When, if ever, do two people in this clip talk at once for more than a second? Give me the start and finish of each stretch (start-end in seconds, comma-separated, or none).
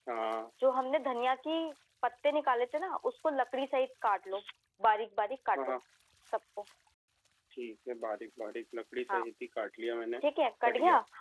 none